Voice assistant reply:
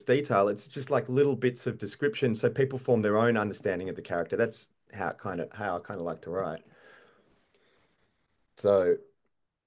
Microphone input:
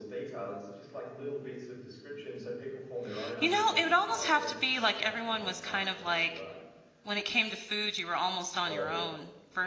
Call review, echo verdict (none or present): present